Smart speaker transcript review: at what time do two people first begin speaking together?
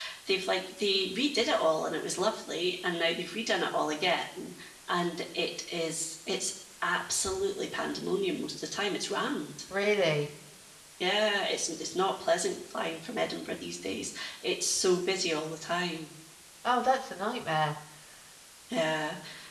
none

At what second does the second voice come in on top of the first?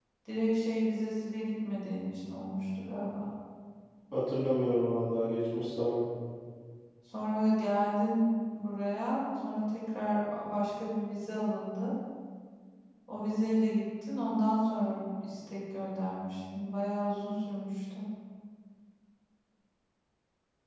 none

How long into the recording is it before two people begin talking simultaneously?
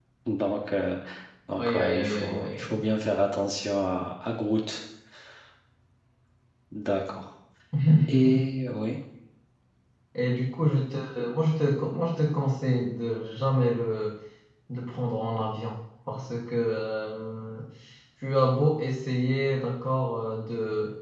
2 s

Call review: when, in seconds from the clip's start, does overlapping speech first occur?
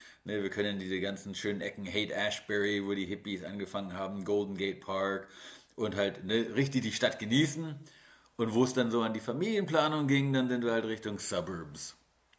none

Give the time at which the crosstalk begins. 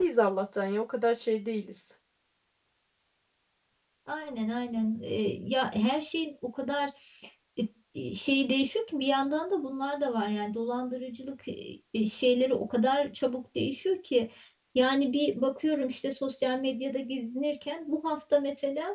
none

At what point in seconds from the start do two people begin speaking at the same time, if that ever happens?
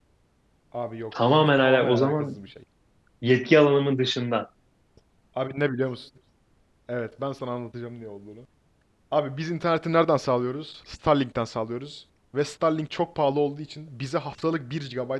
1 s

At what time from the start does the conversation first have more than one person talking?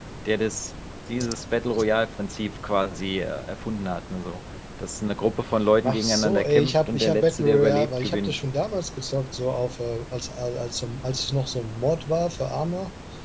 6 s

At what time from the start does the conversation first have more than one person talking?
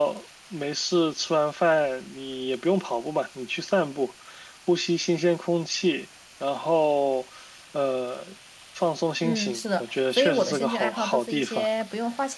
9 s

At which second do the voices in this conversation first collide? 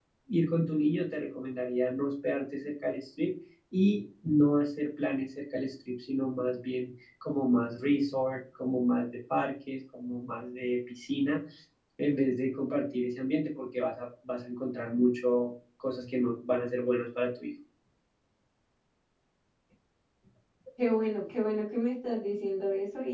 none

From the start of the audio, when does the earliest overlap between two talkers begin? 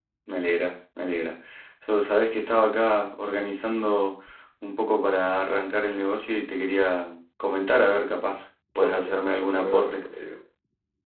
9 s

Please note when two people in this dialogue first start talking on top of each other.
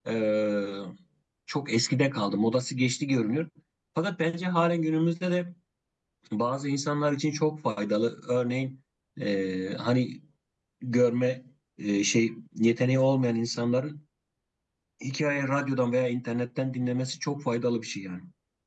none

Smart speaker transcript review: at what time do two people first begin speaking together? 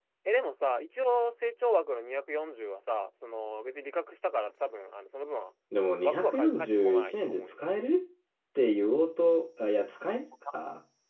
6 s

